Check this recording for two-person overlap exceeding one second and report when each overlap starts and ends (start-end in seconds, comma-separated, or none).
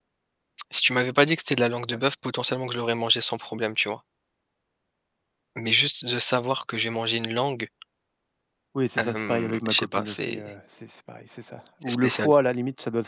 9.0-10.5